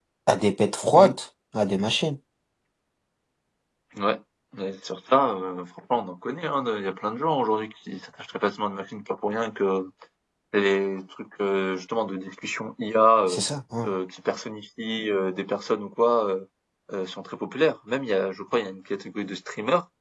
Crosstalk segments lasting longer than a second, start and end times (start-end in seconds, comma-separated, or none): none